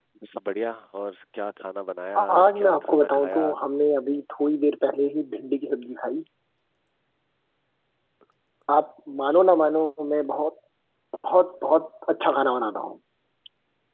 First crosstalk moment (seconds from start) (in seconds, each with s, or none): 2.1 s